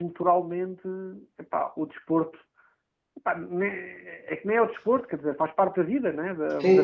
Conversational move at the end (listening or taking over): taking over